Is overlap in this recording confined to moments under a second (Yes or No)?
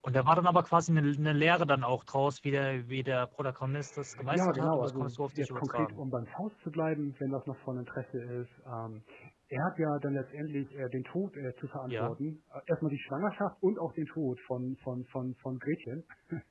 No